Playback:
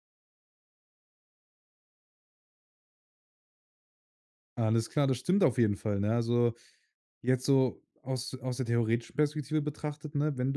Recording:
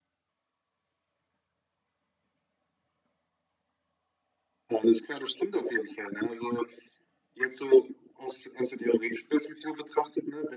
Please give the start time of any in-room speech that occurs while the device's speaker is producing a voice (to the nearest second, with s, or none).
none